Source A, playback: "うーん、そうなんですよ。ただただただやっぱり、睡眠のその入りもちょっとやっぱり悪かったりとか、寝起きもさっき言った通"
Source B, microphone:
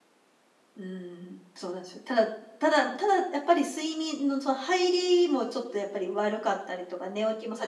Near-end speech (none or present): none